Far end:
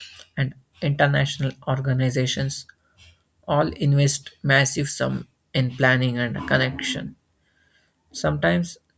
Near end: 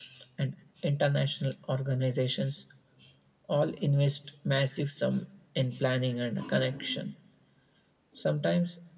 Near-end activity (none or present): none